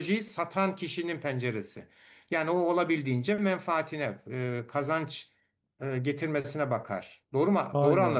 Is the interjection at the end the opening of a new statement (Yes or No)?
Yes